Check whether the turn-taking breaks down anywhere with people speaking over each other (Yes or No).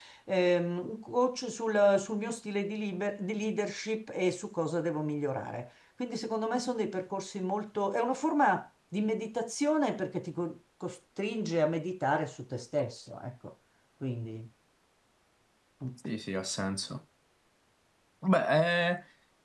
No